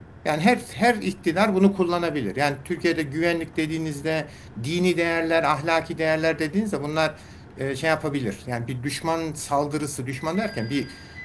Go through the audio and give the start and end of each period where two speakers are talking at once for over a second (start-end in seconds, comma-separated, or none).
none